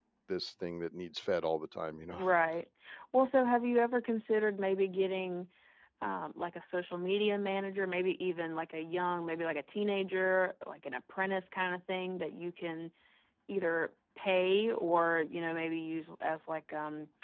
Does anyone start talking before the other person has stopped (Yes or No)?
No